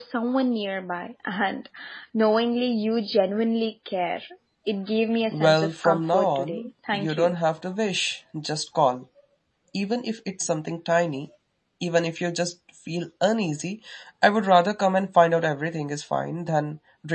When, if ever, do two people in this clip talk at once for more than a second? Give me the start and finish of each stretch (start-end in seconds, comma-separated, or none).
5.3-7.3